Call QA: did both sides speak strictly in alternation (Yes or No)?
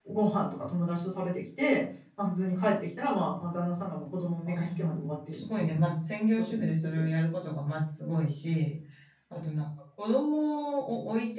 No